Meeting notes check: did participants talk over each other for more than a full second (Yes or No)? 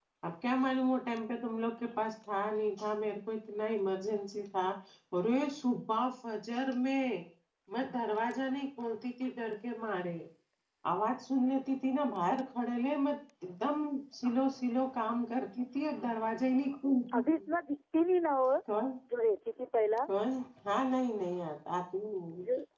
No